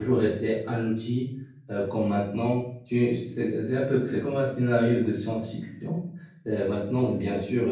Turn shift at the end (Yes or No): No